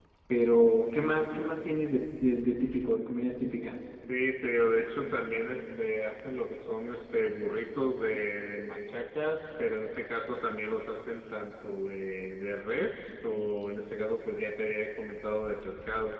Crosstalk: none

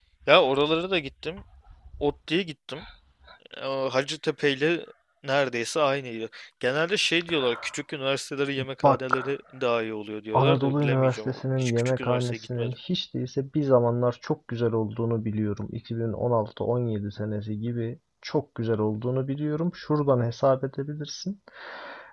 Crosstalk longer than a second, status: present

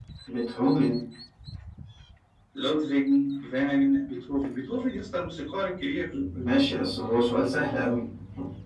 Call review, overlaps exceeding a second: none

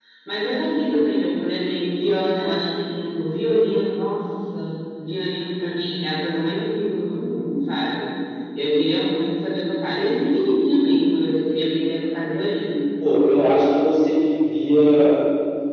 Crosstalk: none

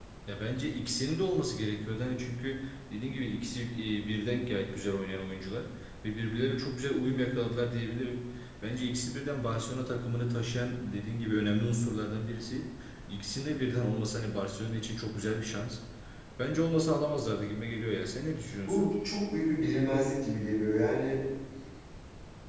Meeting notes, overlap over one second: none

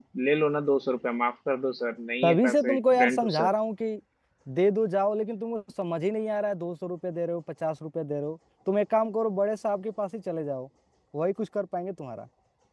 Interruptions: present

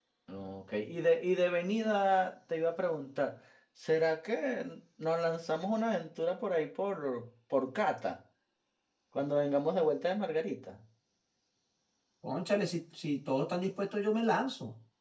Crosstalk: none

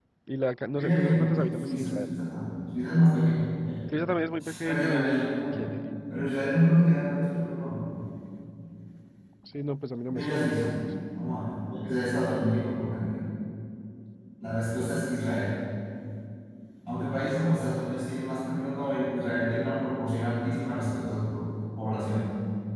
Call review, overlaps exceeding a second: present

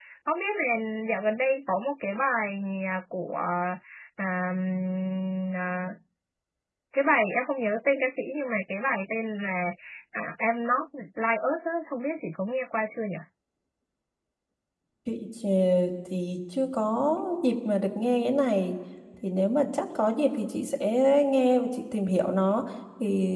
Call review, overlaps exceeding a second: none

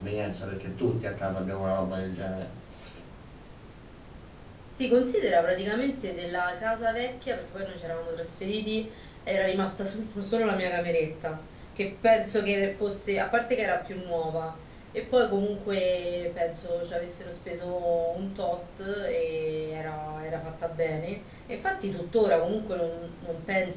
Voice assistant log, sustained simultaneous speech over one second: none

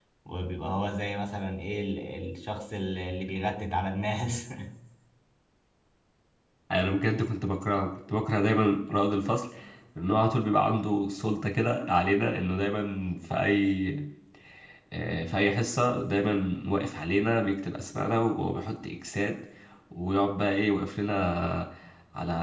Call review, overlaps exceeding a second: none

